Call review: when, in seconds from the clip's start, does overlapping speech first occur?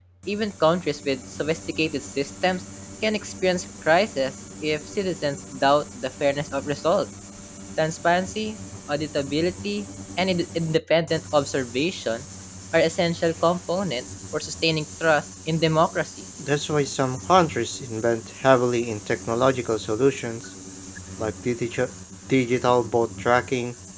none

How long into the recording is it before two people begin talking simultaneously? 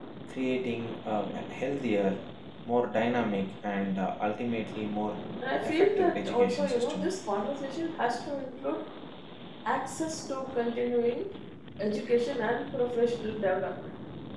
5.6 s

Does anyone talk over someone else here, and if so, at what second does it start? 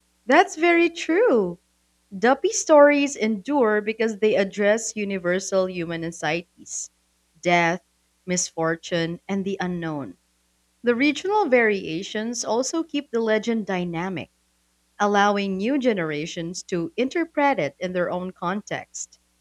none

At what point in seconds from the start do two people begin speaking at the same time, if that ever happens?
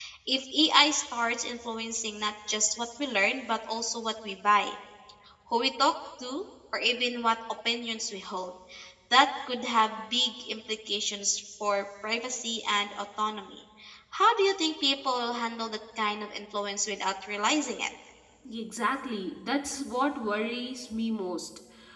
none

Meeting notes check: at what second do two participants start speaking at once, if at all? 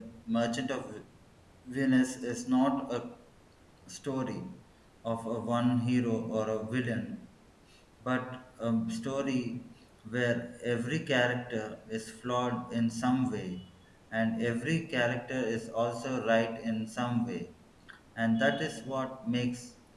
none

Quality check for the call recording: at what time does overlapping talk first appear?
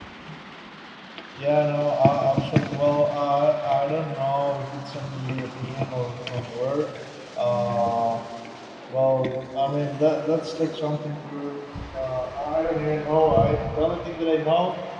none

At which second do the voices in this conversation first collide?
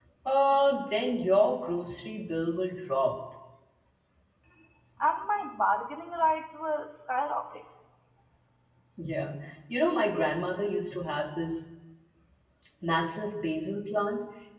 none

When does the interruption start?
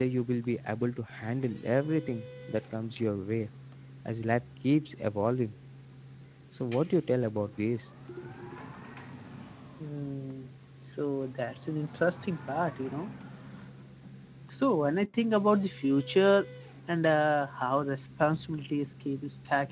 none

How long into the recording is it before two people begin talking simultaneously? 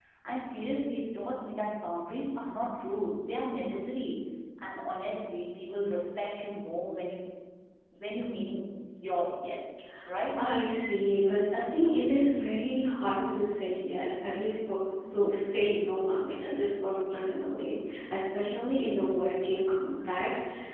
none

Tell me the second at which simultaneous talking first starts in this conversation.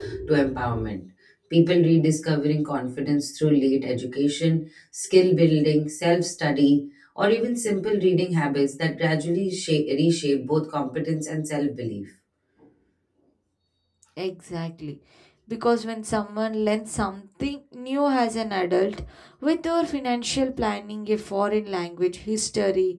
none

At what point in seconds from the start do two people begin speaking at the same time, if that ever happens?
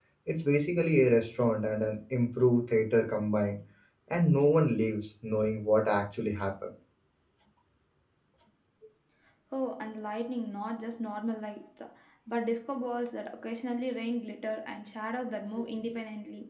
none

